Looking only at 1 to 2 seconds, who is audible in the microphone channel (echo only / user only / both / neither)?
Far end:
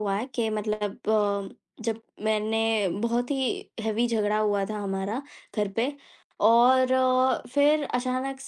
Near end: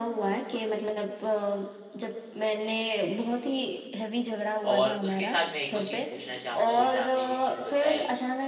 echo only